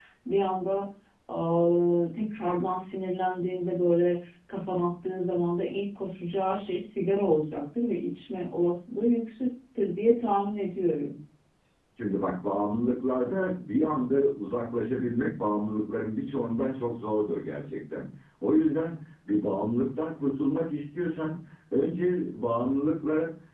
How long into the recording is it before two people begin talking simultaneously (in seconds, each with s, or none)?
none